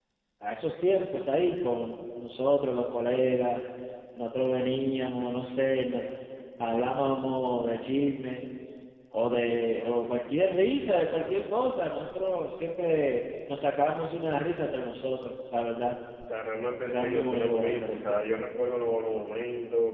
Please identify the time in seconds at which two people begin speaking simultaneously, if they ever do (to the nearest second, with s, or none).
17 s